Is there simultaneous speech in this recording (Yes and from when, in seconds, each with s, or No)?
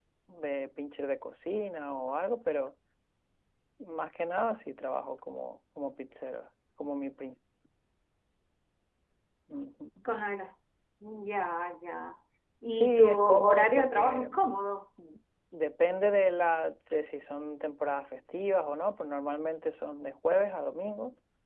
Yes, from 12.8 s